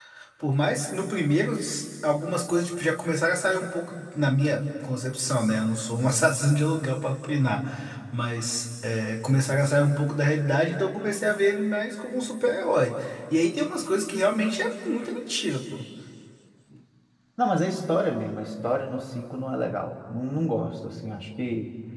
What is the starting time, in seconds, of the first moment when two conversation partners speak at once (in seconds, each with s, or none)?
none